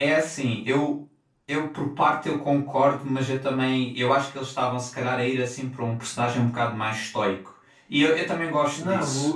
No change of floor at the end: No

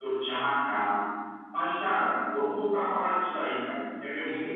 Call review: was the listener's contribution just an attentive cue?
No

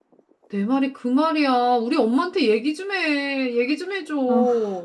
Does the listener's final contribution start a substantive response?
Yes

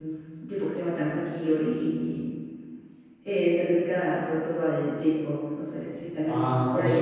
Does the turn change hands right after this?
Yes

